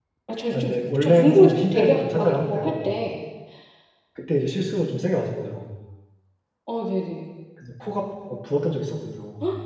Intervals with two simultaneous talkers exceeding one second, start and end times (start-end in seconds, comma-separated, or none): 0.5-2.9